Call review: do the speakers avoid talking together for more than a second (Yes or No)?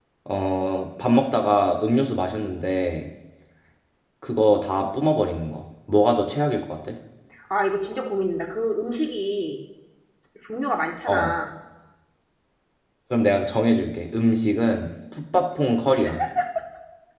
Yes